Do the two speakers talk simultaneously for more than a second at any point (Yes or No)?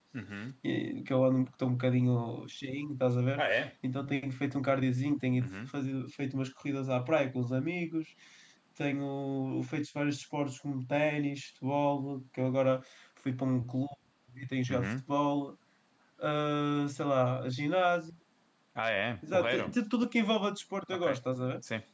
No